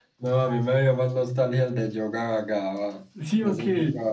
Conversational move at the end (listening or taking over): listening